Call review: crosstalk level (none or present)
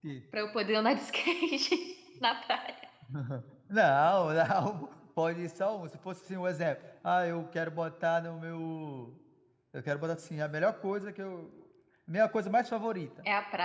none